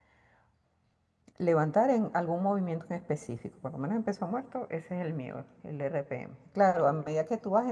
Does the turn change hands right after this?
No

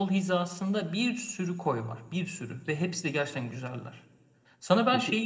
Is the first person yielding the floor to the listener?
No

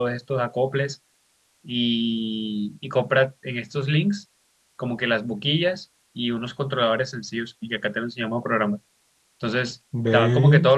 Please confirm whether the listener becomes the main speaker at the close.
No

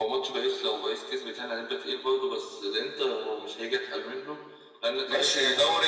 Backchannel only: No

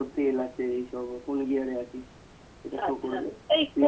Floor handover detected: Yes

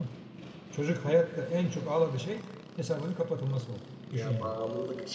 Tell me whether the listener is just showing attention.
No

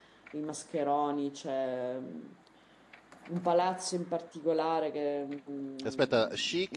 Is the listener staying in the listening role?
No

